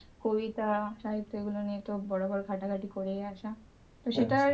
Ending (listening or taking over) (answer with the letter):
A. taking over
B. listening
B